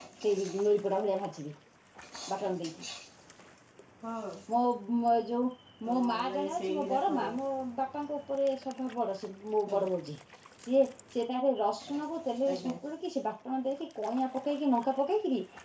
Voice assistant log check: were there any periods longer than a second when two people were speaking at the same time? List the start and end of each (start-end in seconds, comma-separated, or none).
5.9-7.4